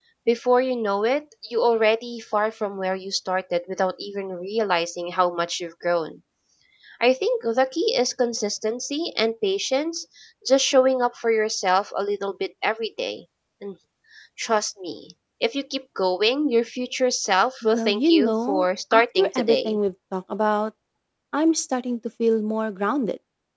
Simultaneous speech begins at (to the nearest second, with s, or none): 18 s